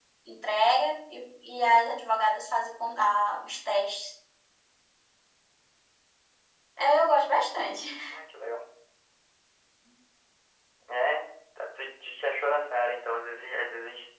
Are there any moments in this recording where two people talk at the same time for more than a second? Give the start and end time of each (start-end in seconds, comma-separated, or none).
none